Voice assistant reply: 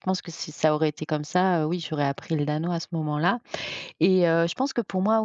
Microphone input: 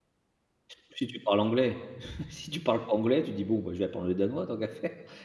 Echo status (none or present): none